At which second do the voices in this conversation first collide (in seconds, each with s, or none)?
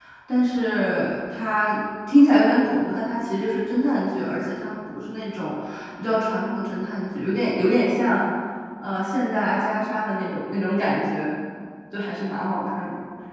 none